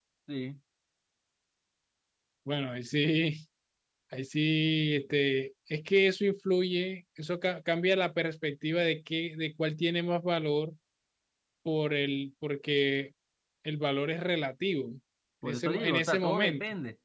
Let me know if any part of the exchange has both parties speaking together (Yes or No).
Yes